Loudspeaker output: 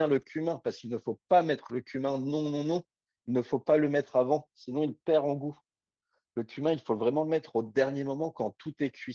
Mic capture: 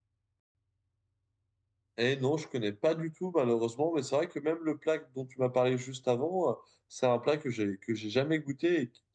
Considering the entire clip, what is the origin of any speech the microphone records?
user only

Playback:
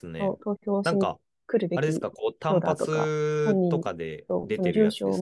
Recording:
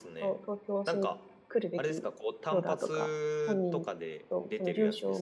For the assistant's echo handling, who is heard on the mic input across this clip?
echo only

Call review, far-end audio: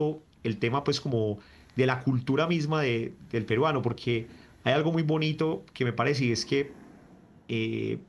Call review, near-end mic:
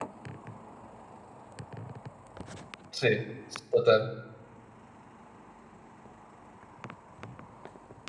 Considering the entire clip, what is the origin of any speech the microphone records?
user only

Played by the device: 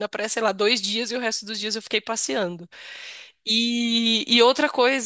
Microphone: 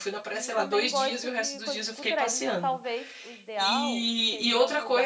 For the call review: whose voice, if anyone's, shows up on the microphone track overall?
both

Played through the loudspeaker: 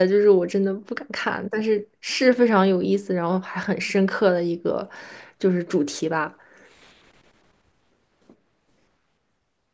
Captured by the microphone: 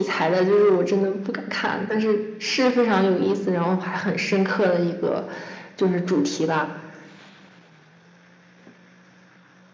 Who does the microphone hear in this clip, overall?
echo only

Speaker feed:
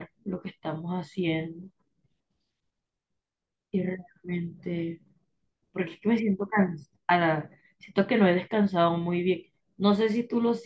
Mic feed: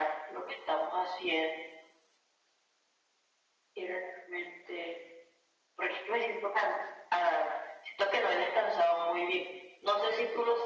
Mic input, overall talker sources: echo only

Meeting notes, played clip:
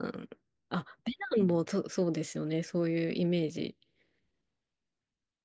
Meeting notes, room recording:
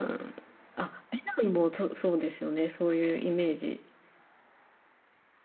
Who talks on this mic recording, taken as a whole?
echo only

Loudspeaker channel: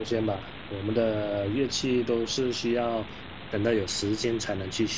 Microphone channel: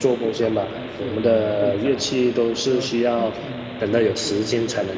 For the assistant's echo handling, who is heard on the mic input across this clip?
both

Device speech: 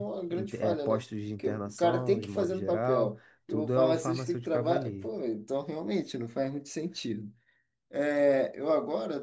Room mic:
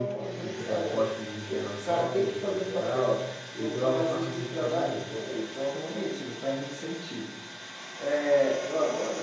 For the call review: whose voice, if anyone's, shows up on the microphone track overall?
echo only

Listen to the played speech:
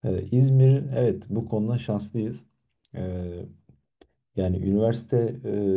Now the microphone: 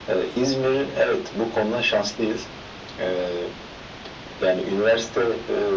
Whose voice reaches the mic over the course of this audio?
echo only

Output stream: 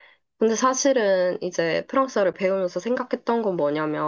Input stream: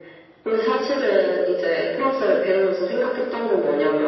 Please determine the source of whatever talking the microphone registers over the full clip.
echo only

